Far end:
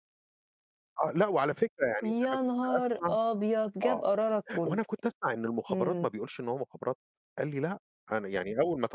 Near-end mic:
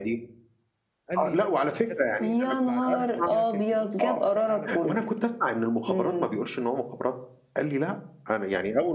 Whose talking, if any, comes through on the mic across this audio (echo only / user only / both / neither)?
both